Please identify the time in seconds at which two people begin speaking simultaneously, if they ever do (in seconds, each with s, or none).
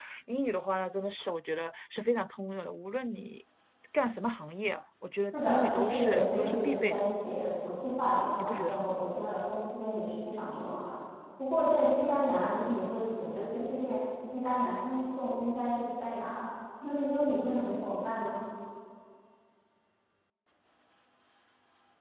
5.3 s